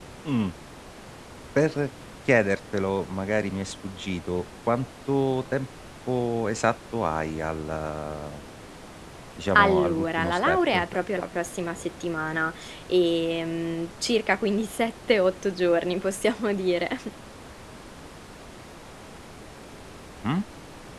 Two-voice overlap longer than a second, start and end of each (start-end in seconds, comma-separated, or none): 9.6-10.8